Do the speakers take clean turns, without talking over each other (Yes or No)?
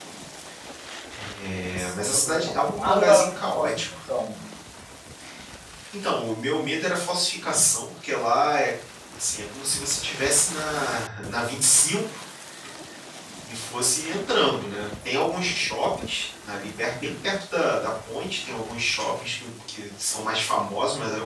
No